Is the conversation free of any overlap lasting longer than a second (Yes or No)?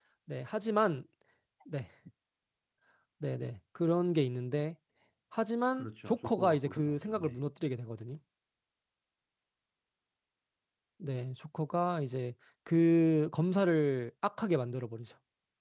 No